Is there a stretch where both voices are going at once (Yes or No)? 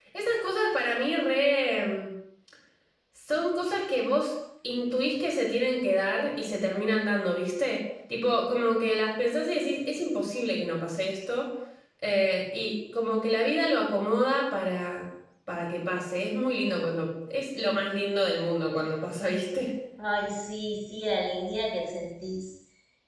No